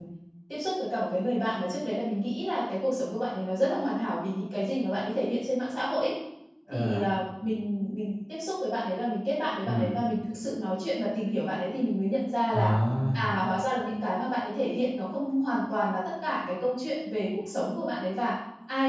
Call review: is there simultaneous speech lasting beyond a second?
No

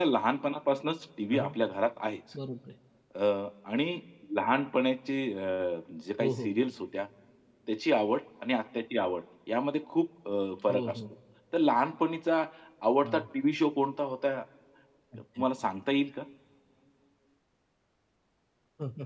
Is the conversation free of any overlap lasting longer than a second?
Yes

